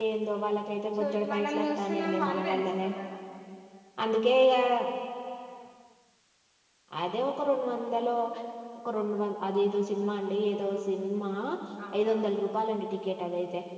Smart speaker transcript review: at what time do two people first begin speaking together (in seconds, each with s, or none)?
0.9 s